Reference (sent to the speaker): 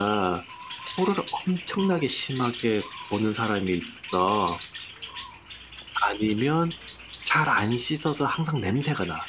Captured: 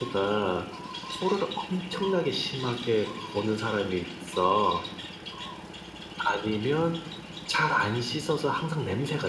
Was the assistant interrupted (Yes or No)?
No